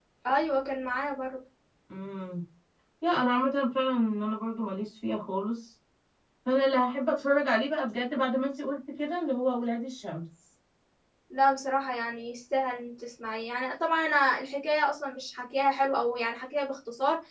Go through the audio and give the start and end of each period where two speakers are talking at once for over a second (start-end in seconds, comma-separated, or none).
none